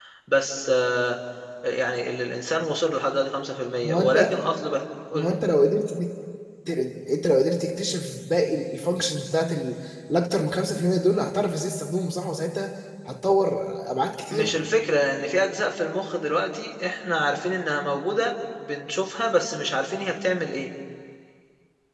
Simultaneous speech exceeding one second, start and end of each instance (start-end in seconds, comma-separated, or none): none